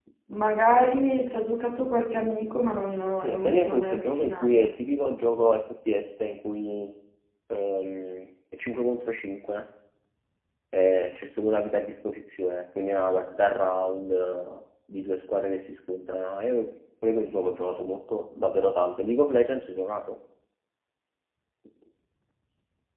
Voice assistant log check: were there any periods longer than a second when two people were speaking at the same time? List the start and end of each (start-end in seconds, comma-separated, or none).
3.2-4.7